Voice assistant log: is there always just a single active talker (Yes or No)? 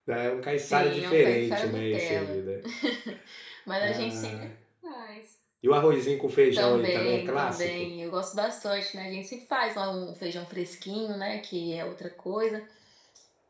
No